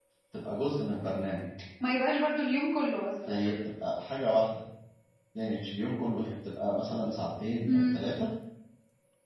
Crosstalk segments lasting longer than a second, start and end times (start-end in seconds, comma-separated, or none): none